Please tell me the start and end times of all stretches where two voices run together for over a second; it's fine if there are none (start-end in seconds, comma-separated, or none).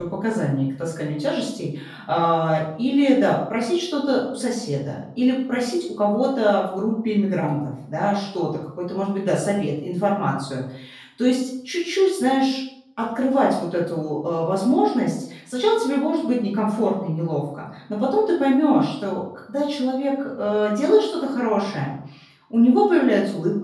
none